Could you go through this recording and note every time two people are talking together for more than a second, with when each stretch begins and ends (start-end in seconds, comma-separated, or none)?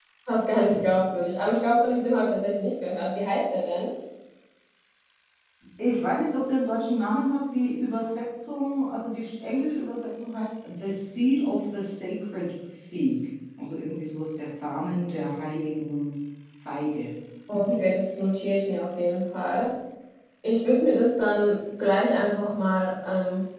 none